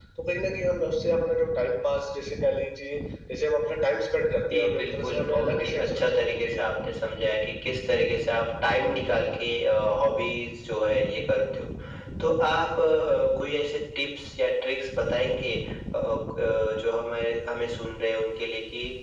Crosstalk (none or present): present